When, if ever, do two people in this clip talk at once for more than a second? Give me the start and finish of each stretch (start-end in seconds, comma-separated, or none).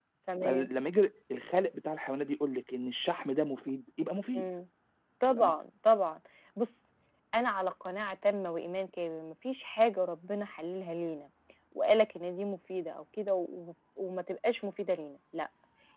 none